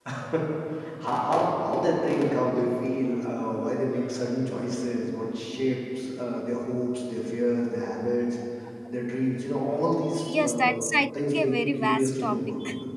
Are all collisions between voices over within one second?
No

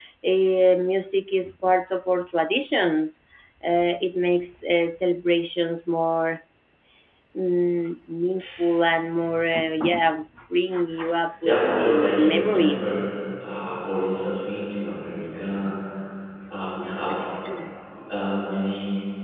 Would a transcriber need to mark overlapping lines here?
Yes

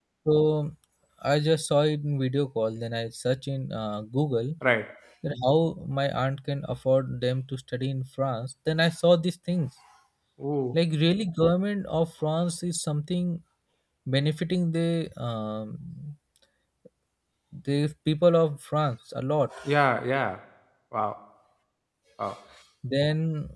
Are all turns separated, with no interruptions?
Yes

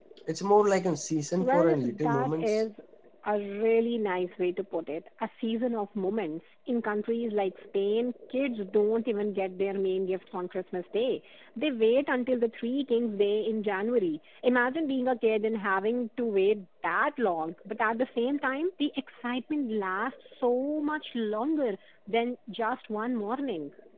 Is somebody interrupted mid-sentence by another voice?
Yes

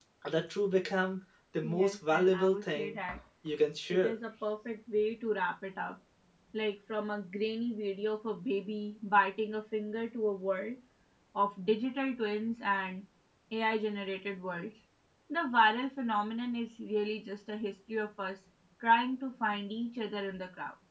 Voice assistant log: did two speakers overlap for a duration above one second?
Yes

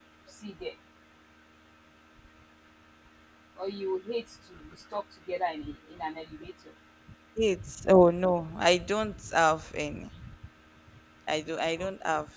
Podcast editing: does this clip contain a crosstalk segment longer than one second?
No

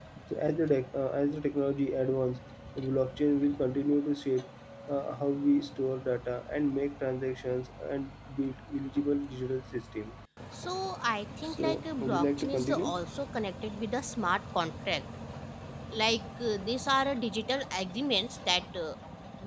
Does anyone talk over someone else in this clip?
Yes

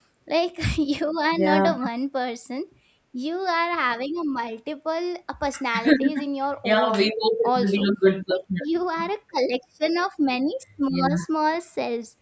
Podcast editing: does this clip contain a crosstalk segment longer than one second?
No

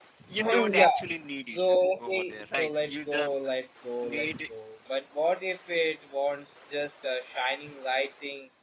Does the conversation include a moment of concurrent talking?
Yes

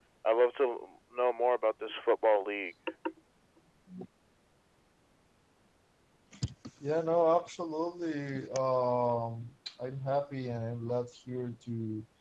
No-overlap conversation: Yes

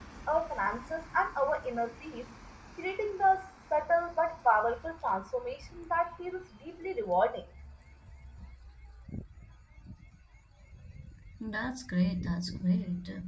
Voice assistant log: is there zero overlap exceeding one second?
Yes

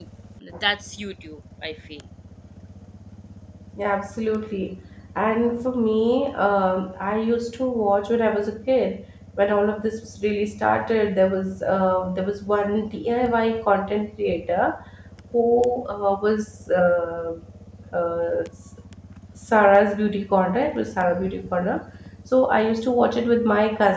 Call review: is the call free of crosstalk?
Yes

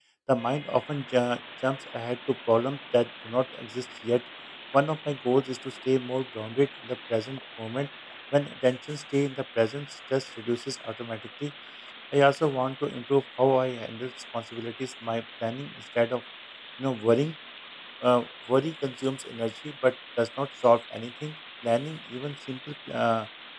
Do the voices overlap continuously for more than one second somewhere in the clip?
No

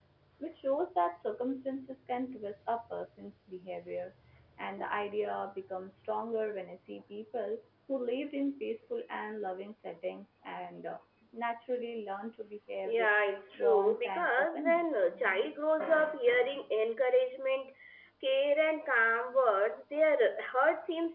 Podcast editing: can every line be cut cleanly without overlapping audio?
No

